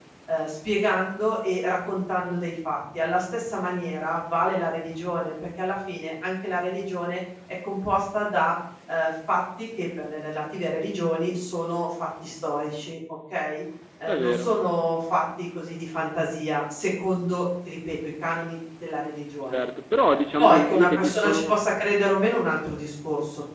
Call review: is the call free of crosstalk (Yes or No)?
No